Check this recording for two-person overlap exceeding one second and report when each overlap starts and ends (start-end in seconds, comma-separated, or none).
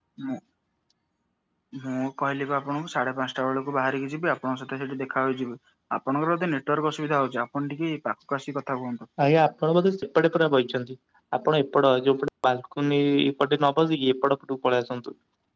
none